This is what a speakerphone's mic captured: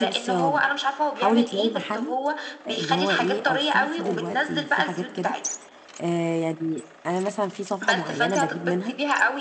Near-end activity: present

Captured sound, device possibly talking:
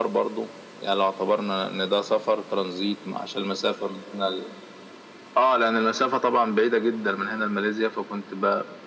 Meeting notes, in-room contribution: none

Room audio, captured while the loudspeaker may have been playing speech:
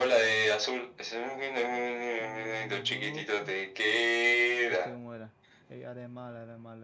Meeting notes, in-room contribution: present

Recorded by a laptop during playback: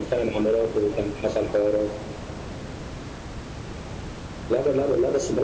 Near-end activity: none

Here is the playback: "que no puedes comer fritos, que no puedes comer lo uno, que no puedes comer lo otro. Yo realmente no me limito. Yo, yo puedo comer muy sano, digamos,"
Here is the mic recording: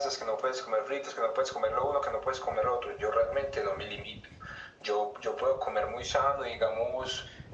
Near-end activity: none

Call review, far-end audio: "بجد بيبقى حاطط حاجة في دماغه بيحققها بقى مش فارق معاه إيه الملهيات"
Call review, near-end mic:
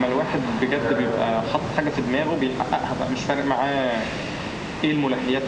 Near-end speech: present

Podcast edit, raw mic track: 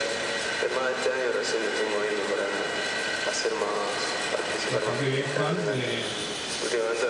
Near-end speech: present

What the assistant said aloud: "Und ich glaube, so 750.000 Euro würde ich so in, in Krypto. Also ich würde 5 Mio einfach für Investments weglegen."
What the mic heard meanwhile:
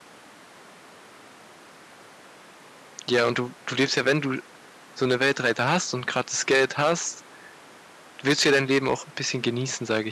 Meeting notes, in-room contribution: present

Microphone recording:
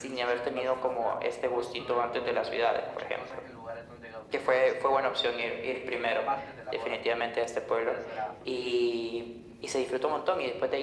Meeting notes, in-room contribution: present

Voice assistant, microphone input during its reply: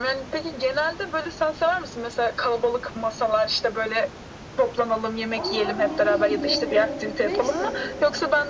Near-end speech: present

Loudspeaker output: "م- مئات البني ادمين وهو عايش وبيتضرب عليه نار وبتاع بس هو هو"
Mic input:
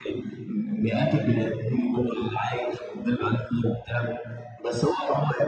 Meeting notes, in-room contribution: none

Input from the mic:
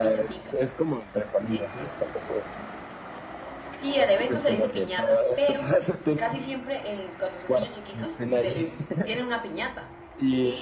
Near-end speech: present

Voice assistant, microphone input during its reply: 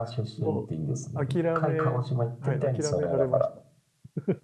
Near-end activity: present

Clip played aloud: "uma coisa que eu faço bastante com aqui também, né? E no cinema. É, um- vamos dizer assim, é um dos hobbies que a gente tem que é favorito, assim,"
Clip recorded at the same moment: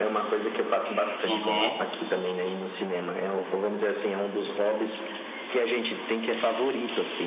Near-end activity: present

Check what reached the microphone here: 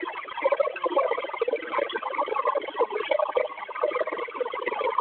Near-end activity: none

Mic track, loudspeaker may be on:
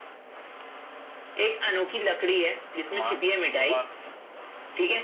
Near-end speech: present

